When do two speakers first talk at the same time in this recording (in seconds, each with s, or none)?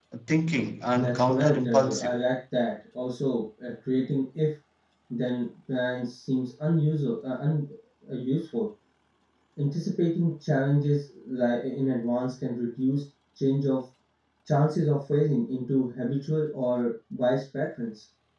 0.9 s